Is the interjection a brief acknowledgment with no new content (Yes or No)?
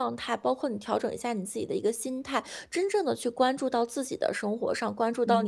Yes